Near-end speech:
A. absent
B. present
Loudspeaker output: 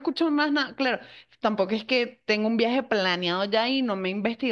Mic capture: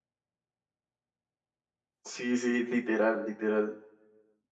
B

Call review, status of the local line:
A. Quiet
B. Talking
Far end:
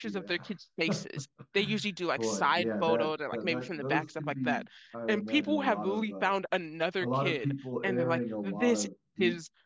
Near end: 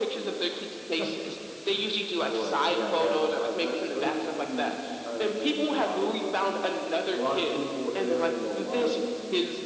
A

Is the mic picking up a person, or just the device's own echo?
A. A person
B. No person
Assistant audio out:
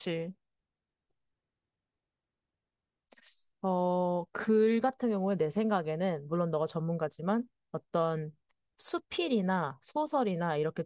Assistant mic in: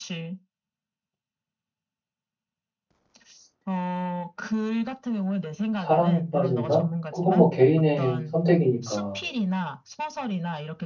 A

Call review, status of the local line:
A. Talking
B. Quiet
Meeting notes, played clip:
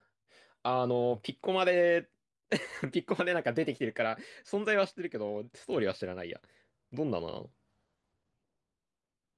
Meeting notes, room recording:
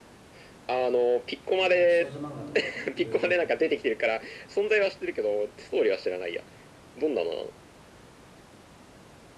A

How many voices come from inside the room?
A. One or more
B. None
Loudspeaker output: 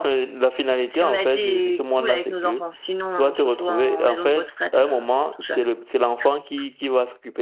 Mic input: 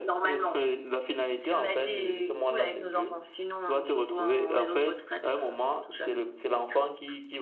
B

